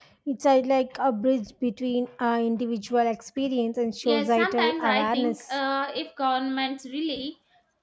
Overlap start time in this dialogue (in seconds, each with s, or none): 4.0 s